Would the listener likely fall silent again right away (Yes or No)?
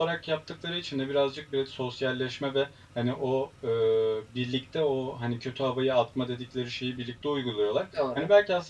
Yes